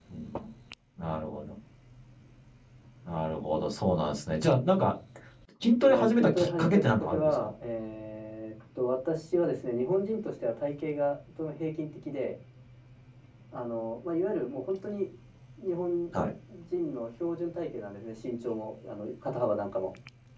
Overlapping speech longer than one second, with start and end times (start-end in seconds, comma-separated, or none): 5.9-7.5